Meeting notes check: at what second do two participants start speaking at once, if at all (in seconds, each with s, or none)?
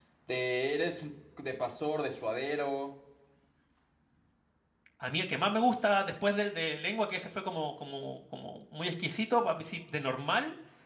none